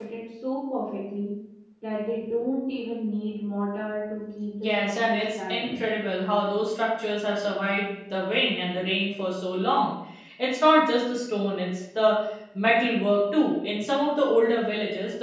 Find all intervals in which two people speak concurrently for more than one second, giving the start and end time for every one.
4.6-5.8

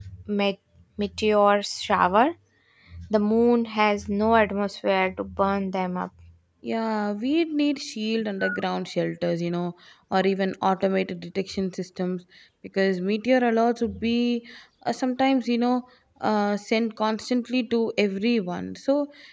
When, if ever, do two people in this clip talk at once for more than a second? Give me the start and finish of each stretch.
none

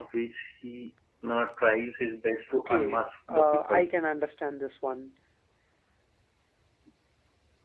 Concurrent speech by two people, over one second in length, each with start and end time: 2.7-3.9

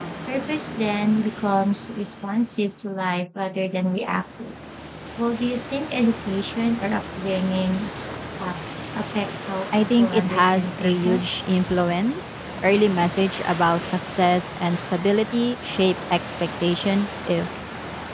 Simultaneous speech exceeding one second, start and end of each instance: 9.7-11.3

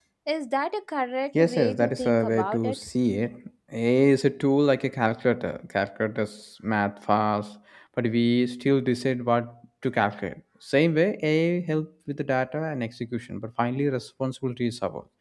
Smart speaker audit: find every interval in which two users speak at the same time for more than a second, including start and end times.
1.4-2.8

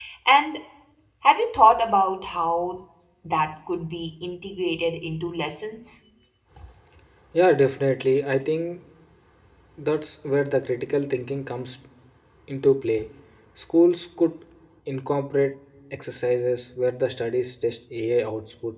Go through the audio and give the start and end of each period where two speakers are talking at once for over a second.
none

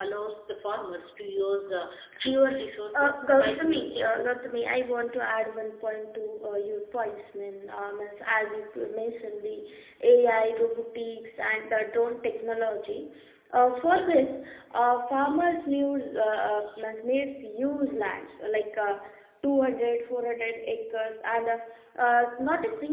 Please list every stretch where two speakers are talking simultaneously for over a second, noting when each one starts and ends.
2.9-4.1

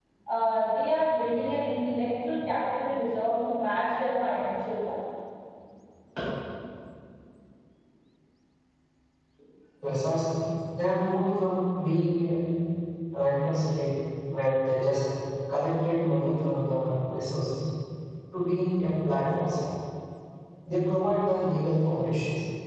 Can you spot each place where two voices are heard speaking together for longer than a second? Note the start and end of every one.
none

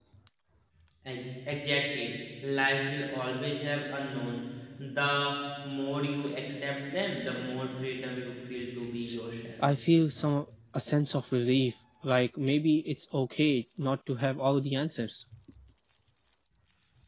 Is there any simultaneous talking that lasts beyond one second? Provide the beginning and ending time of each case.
none

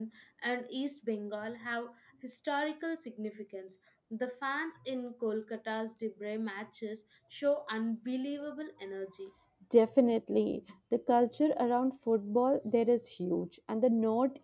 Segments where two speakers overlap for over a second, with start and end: none

